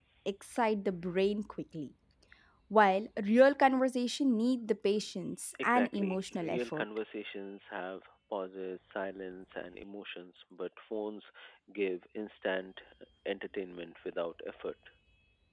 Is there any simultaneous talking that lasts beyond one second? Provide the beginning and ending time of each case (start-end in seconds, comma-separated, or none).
5.6-6.8